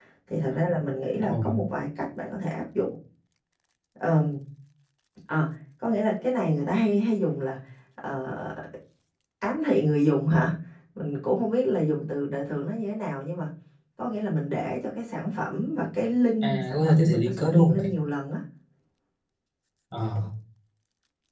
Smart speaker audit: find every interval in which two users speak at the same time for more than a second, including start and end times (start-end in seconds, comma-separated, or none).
16.4-17.9